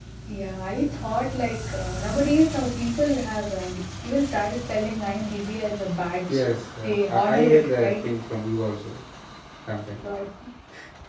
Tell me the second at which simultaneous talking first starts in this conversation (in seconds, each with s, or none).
6.8 s